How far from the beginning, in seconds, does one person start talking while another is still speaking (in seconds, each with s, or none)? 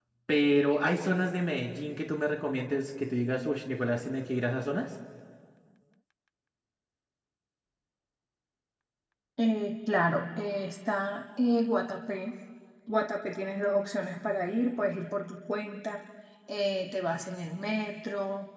none